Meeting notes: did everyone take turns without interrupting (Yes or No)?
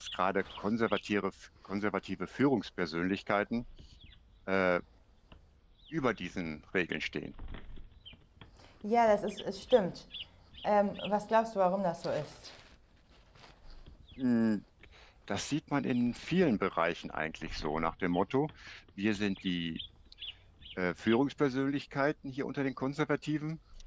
Yes